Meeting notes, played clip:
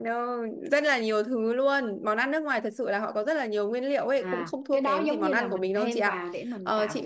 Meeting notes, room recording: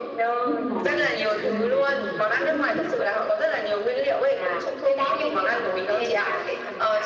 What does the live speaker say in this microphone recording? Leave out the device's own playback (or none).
nước ngoài mà anh này á là hồi trước chị quen